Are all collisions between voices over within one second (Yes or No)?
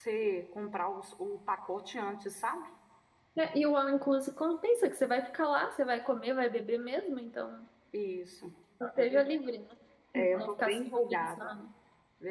No